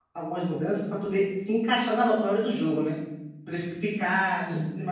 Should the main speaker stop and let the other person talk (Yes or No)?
No